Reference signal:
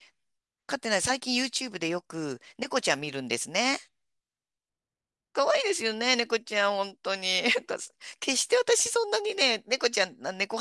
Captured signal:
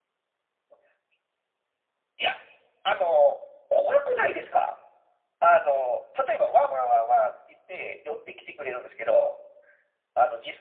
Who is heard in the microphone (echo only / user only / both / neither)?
user only